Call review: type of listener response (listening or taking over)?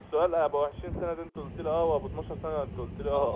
taking over